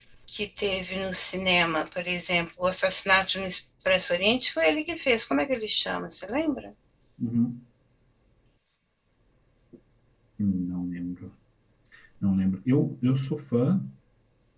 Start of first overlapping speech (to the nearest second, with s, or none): none